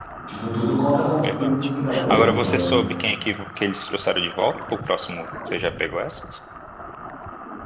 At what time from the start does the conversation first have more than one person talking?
1.2 s

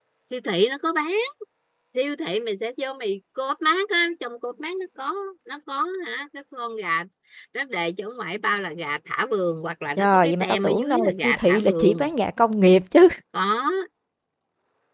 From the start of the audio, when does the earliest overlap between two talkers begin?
10.0 s

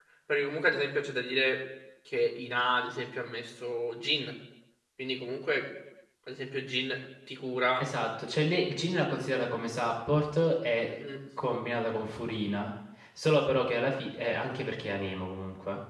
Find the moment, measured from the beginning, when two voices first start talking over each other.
none

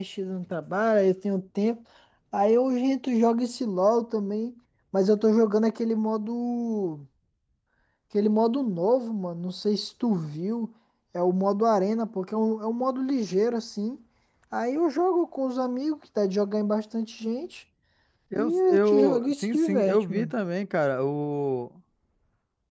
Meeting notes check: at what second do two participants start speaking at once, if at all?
18.4 s

